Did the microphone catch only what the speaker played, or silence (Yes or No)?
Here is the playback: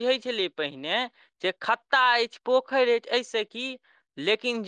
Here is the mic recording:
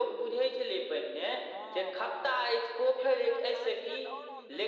No